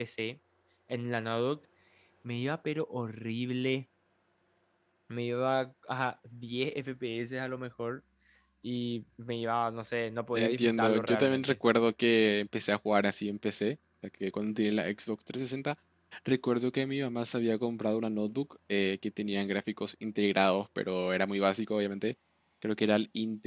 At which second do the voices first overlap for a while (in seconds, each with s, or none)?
10.3 s